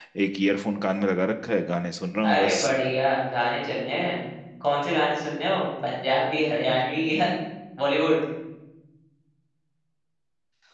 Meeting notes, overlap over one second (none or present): none